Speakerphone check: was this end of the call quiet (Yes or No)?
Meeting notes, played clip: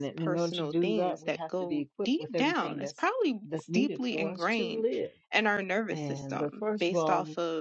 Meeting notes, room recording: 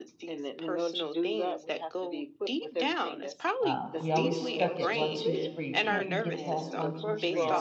No